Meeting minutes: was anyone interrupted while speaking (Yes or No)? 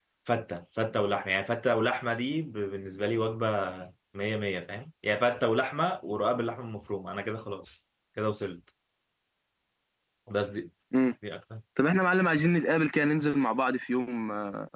No